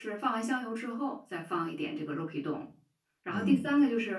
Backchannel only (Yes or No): Yes